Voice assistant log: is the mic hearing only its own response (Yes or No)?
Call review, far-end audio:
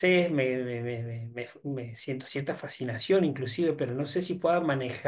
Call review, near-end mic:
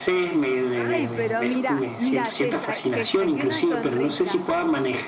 No